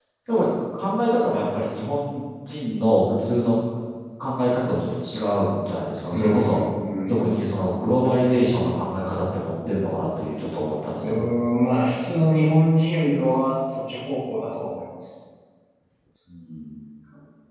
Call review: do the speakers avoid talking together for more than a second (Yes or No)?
Yes